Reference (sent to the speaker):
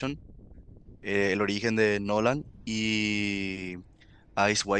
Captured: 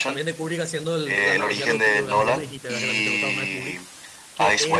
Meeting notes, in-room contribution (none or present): present